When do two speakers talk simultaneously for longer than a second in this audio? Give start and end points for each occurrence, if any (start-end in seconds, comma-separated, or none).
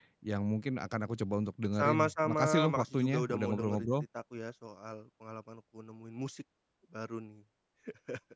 1.8-3.9